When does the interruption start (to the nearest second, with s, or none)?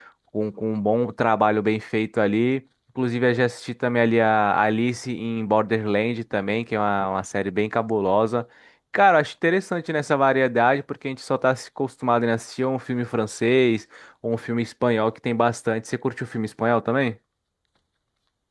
none